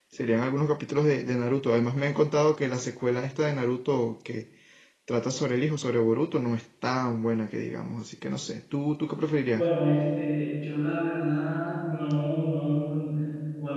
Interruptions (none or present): none